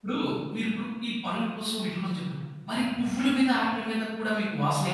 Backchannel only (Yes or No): No